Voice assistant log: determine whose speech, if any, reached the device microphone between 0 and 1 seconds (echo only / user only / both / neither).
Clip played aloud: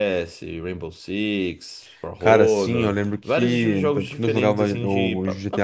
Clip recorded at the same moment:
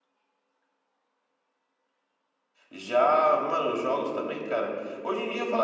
neither